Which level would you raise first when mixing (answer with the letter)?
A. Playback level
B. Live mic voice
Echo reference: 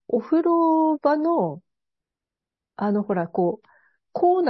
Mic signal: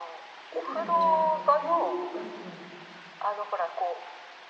B